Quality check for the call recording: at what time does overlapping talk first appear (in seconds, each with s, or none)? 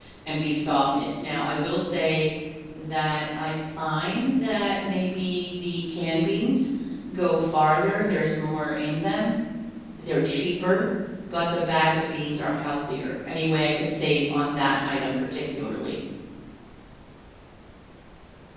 none